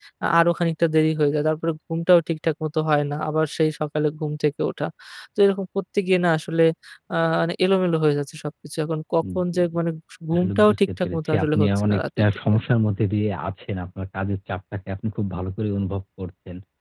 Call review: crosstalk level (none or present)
present